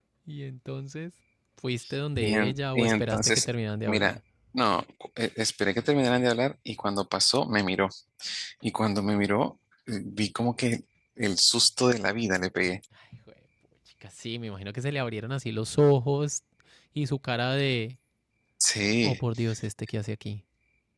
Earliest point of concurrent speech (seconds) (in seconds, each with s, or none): 2.2 s